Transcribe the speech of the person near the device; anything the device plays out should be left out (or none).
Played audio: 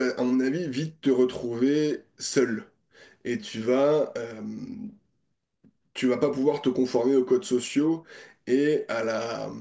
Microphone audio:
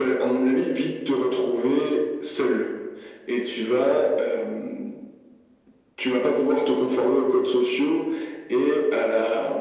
none